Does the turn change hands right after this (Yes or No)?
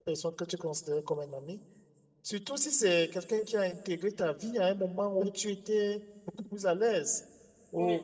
No